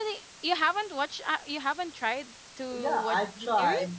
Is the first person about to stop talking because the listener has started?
Yes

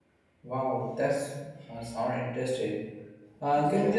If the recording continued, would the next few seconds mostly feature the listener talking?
No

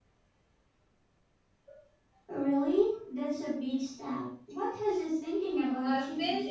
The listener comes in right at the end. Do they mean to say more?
Yes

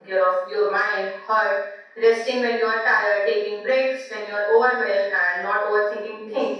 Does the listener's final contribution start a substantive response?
No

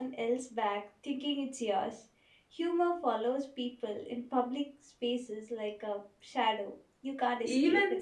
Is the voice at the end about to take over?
Yes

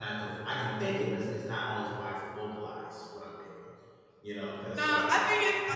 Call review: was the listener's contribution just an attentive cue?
No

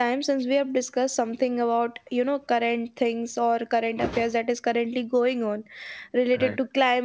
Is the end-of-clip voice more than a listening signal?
No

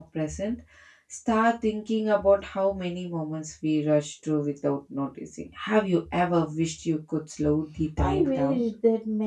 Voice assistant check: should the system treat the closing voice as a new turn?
Yes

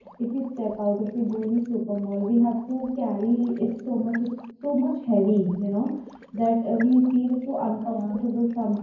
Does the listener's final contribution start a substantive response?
No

